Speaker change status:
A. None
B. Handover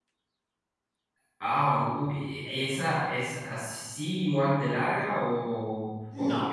B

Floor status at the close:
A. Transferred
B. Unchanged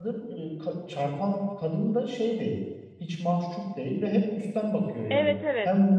B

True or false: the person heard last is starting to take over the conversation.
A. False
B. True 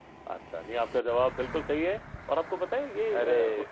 A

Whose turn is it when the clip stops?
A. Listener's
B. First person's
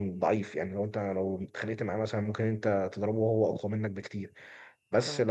B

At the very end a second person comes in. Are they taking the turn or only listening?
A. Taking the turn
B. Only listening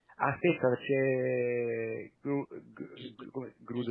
A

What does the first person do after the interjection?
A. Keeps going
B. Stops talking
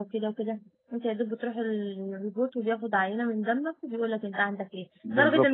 A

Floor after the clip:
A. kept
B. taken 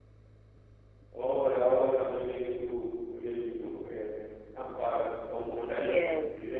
B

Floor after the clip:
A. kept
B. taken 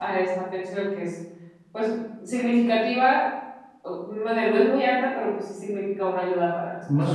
B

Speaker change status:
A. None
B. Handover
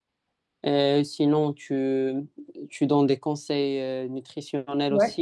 B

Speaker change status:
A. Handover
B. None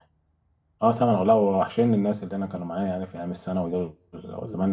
B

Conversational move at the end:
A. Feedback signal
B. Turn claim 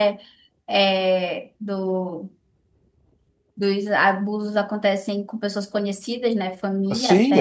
B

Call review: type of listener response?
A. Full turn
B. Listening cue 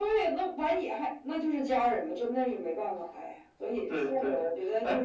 A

